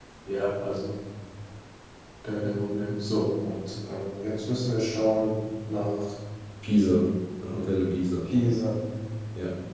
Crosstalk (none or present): none